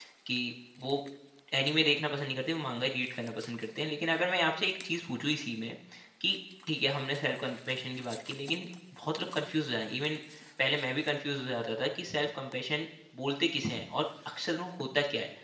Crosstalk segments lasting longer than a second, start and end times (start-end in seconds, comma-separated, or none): none